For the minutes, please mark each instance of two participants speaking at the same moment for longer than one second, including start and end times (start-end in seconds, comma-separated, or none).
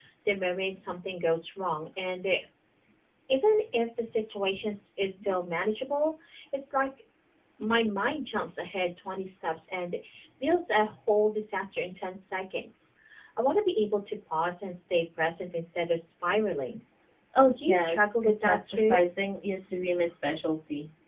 17.6-19.0